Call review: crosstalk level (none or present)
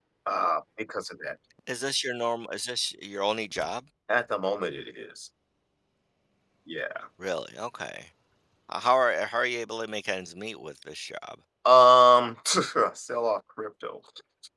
none